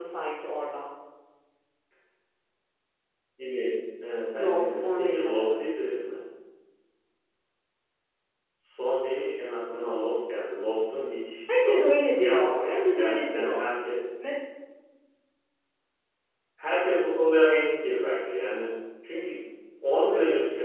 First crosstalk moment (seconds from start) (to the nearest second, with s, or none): 4 s